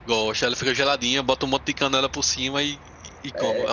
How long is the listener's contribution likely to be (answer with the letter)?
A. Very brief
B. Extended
B